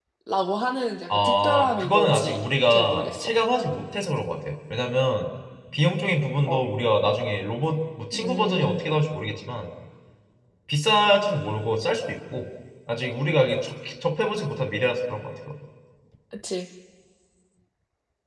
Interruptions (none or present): present